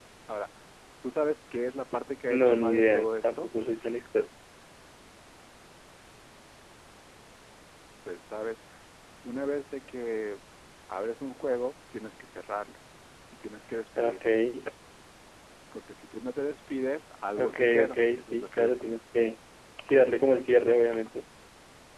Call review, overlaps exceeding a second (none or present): present